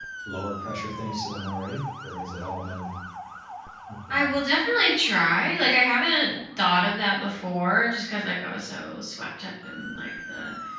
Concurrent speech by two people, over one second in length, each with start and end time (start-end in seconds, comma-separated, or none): none